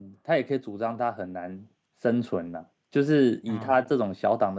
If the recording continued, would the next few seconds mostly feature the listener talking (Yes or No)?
No